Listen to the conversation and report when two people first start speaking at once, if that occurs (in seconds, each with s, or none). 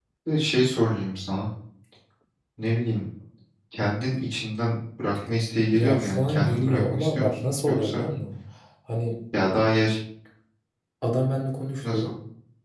5.7 s